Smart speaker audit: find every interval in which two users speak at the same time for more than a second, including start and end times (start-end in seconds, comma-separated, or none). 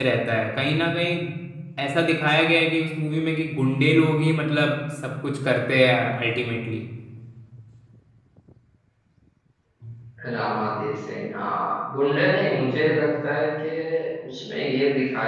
none